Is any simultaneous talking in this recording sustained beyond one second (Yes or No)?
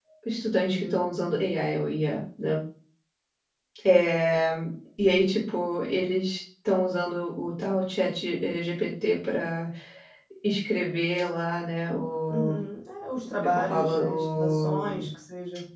Yes